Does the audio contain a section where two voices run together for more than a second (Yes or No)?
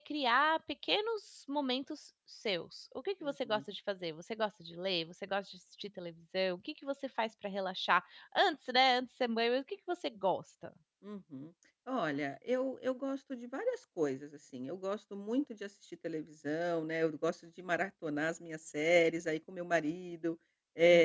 No